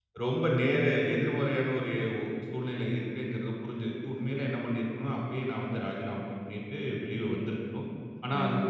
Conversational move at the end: listening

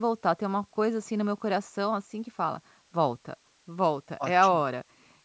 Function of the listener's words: listening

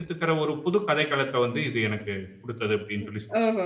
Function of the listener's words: taking over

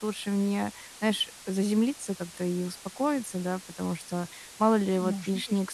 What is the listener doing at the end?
listening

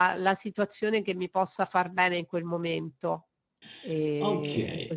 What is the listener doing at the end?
taking over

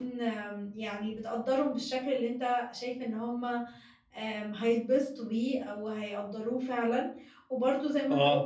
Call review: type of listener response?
listening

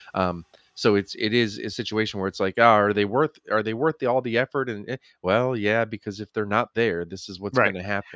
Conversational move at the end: taking over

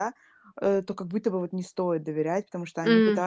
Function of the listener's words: listening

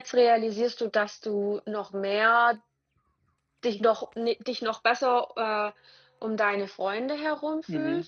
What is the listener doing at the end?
taking over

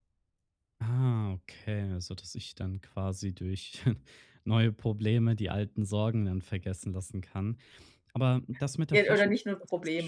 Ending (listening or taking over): taking over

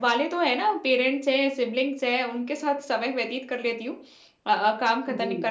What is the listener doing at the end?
listening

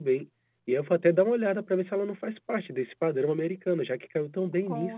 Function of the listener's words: taking over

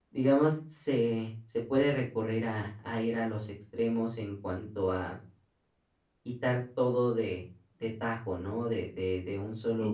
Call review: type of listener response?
listening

